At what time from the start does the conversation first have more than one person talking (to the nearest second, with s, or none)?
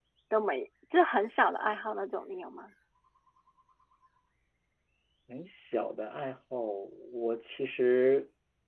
none